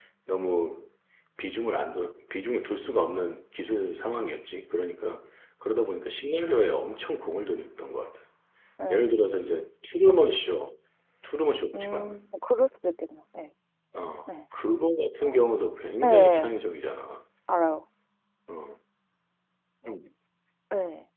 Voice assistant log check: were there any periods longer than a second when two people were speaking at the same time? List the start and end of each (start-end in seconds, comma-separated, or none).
none